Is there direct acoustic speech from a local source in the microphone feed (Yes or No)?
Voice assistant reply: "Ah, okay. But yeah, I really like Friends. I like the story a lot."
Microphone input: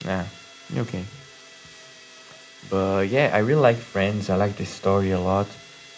No